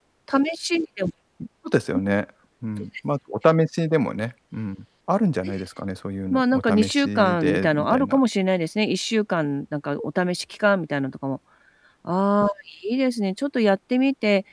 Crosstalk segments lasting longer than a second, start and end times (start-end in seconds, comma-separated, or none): 6.3-8.2